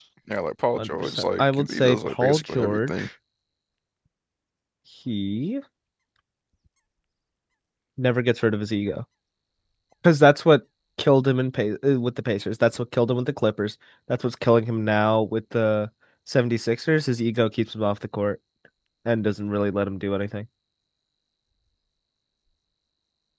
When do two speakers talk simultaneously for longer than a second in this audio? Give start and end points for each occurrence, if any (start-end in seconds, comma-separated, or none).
0.8-3.1